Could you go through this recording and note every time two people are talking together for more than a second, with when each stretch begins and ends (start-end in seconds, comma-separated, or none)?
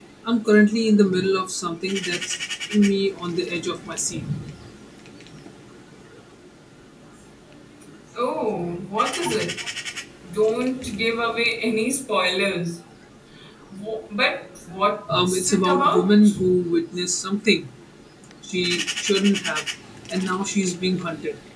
15.1-16.3